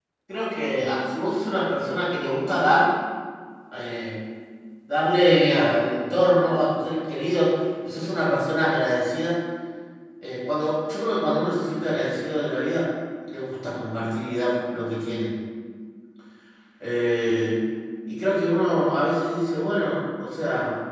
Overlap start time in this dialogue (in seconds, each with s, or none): none